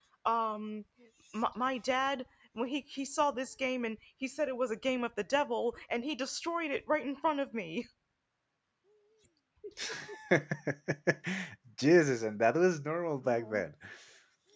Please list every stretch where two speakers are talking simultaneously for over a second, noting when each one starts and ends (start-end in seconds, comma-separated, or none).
none